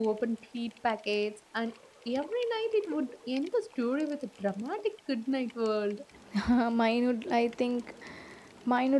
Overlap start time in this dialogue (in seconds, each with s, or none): none